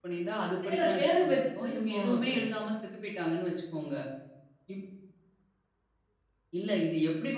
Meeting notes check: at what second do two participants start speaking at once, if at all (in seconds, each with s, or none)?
0.7 s